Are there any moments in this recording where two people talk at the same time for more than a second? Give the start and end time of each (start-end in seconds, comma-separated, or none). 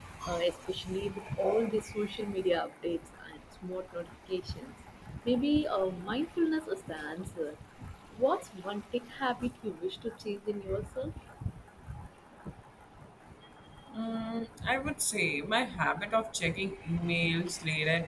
none